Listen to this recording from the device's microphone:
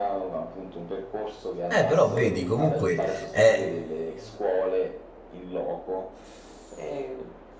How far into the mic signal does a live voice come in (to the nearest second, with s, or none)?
2 s